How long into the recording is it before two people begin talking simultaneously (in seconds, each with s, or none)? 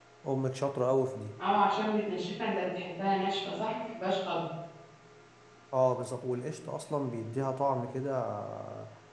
none